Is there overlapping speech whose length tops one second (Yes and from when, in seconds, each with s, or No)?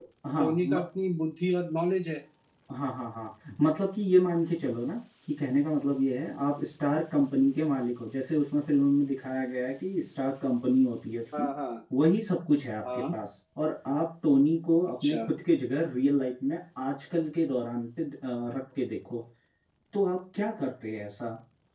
No